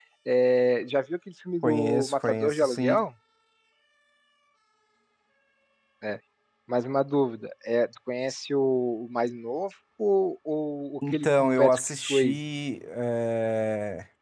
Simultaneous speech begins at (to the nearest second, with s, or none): 2 s